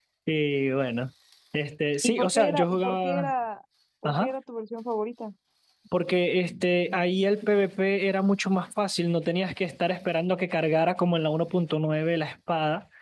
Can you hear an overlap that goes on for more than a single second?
Yes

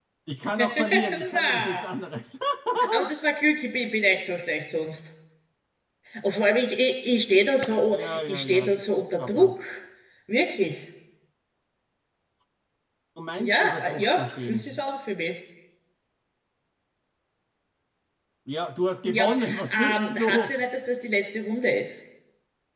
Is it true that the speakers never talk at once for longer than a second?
No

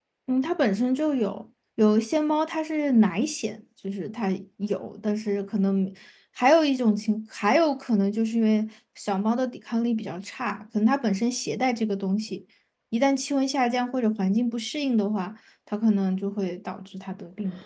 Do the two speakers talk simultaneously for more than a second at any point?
No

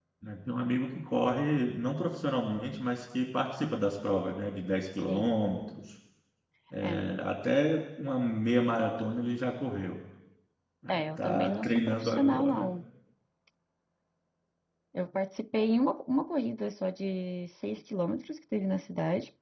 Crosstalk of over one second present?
Yes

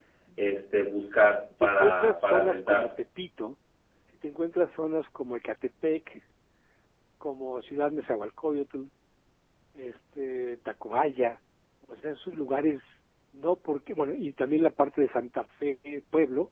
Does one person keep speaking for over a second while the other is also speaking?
Yes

